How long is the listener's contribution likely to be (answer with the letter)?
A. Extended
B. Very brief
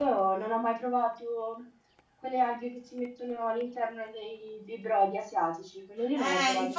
A